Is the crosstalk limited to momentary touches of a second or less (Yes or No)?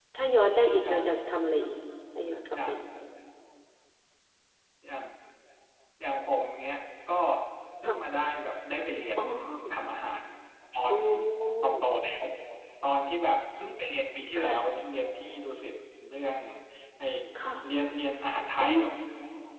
Yes